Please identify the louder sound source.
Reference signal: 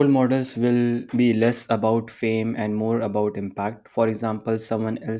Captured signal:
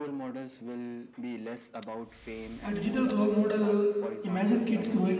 user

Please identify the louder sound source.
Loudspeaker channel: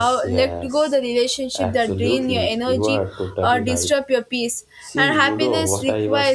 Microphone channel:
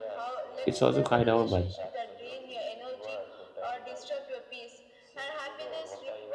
user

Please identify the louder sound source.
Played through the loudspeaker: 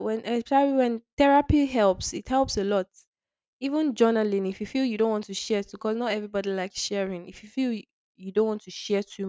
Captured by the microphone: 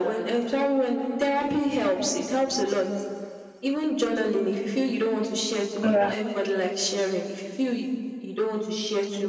user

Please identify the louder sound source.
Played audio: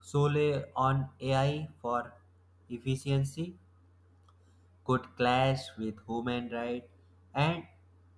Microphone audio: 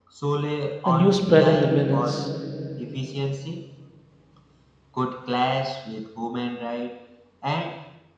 user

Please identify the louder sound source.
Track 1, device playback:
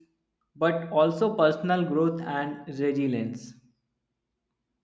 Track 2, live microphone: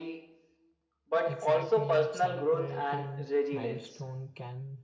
echo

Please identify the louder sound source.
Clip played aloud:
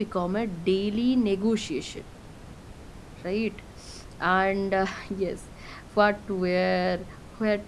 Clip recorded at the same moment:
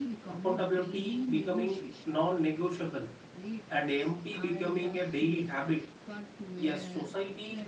user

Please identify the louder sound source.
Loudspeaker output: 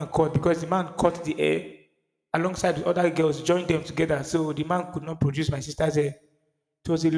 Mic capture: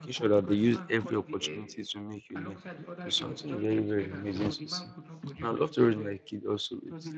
user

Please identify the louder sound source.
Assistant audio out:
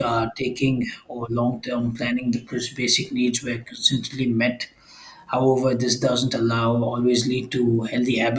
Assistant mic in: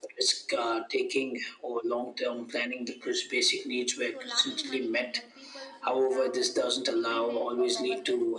echo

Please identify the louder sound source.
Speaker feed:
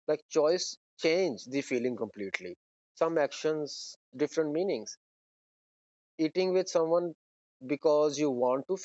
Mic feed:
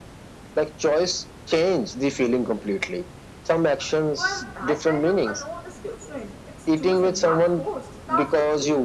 echo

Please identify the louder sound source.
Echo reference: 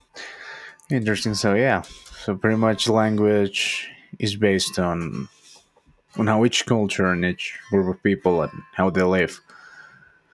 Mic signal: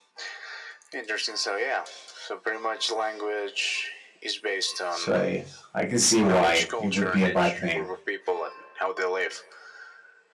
user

